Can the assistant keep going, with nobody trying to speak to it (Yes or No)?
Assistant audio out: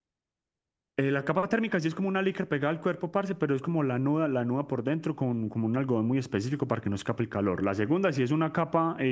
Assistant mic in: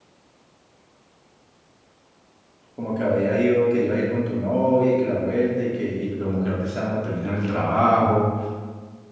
No